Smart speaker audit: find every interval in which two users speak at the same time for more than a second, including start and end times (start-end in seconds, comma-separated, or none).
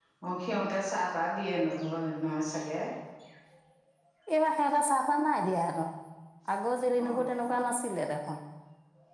none